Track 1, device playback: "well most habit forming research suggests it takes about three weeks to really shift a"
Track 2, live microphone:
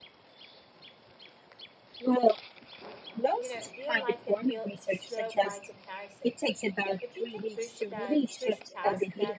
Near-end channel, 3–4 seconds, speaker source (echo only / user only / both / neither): both